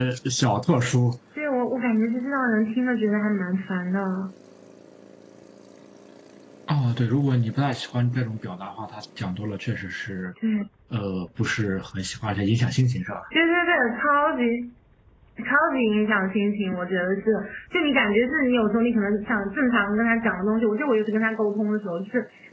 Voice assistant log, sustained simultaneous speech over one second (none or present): none